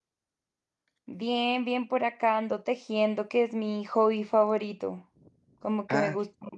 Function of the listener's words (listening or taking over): listening